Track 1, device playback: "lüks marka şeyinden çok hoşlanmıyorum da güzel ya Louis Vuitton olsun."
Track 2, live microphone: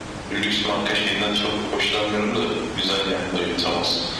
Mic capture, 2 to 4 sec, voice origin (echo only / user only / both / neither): echo only